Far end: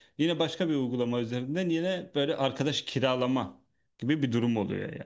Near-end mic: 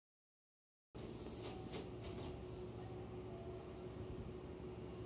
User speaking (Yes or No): No